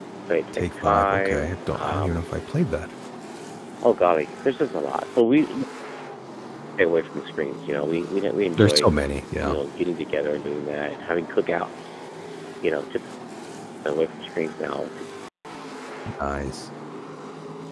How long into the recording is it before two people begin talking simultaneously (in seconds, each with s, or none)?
0.5 s